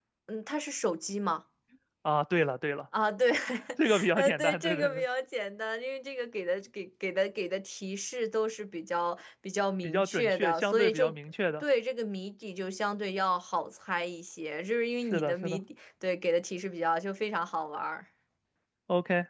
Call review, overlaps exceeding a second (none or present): present